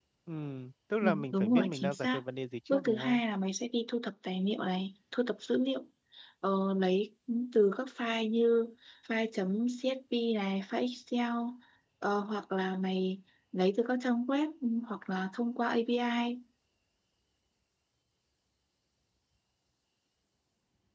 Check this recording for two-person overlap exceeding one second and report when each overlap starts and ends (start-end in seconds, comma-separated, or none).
1.0-2.2